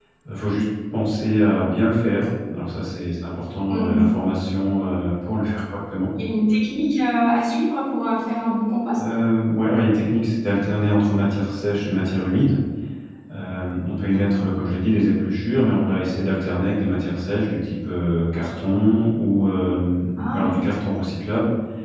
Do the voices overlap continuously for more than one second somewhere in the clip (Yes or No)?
No